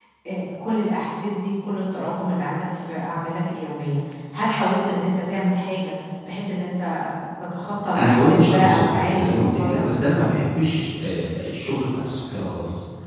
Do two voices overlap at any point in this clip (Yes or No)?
Yes